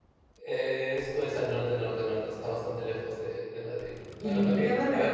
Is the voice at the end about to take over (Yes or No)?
Yes